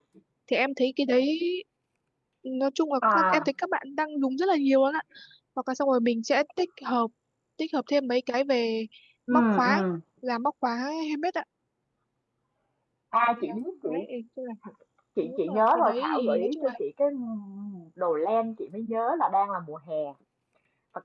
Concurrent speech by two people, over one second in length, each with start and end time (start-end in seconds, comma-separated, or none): 15.2-16.7